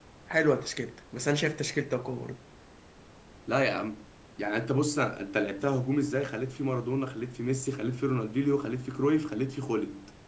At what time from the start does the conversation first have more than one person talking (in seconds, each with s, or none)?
none